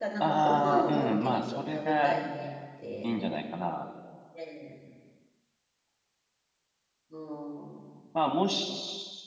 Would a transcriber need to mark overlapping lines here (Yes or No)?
Yes